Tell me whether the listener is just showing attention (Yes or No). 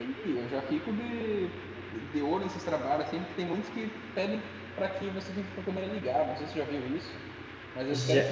Yes